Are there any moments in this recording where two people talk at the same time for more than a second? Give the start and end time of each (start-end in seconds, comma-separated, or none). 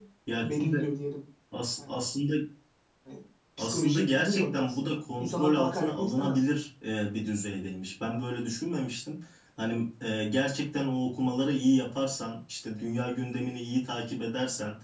3.6-6.4